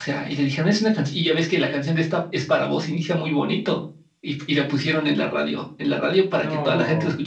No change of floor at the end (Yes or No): Yes